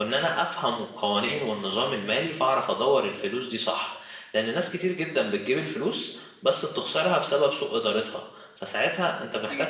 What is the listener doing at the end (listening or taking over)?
taking over